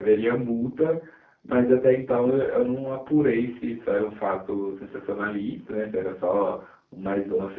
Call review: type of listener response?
listening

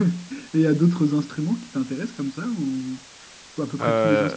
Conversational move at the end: listening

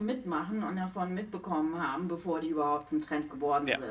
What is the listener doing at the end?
listening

